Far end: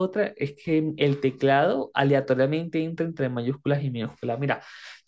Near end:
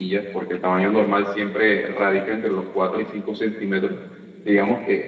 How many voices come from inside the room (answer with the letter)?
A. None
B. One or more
B